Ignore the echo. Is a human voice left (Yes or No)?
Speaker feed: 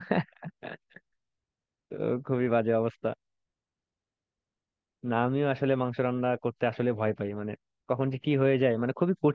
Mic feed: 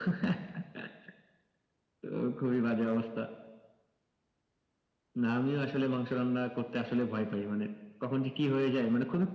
No